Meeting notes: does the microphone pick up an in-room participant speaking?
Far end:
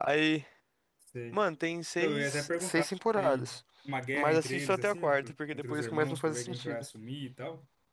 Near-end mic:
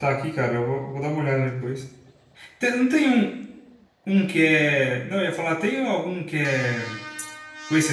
Yes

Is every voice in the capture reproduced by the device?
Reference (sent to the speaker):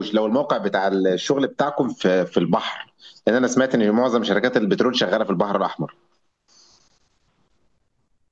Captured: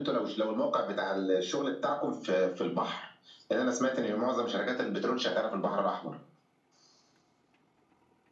Yes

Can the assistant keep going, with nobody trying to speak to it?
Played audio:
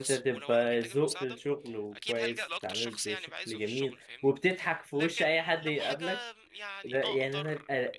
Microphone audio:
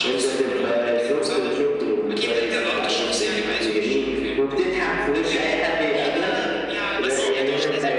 No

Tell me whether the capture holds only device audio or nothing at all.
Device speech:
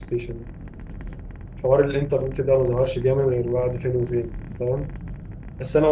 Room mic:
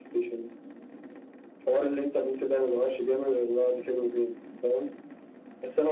Yes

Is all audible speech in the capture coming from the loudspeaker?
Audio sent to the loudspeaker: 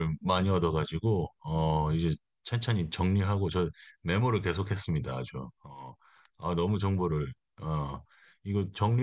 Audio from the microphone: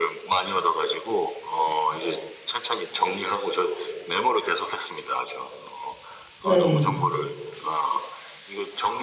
No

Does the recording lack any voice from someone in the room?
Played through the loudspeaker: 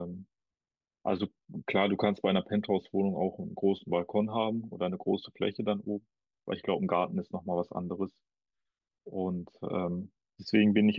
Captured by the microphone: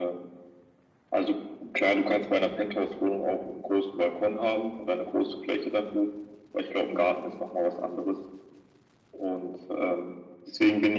Yes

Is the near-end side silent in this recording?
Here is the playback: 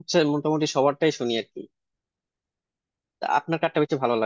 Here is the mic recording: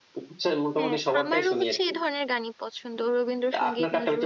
No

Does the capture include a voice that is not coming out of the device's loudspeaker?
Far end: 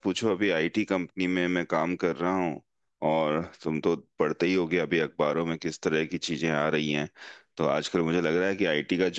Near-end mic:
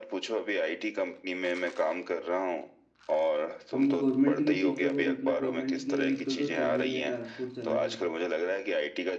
Yes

